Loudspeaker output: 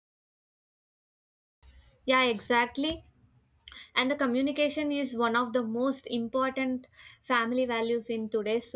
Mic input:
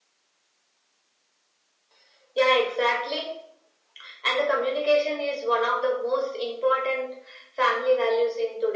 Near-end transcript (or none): none